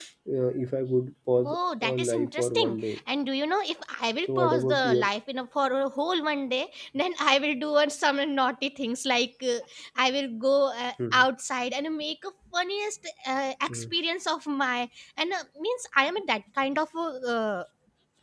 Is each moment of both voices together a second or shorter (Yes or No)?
No